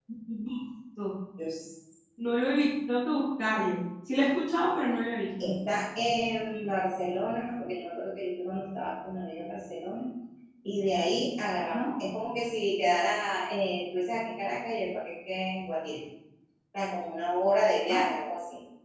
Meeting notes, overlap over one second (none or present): none